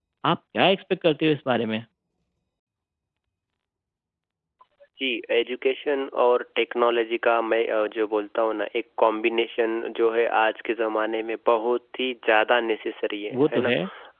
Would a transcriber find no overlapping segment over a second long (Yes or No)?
Yes